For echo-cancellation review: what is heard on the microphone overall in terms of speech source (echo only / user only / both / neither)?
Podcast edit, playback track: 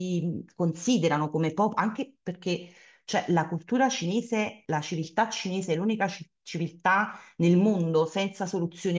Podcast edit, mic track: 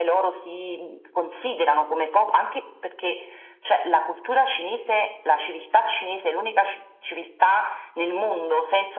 echo only